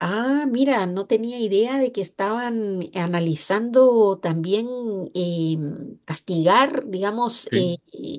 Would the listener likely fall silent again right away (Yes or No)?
Yes